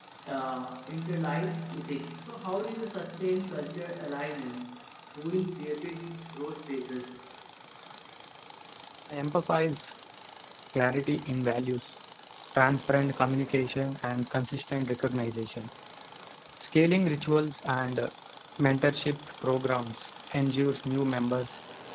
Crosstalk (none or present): none